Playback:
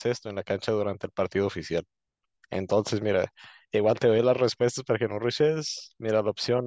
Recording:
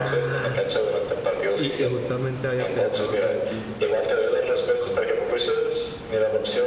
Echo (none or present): present